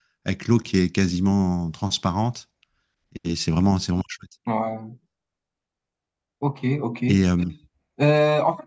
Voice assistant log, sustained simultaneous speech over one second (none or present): none